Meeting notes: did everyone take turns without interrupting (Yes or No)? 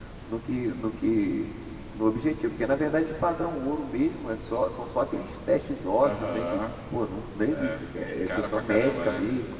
No